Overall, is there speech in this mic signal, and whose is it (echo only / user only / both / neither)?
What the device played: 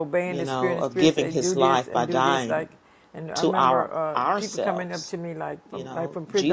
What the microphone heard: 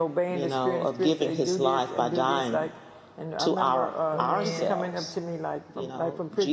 both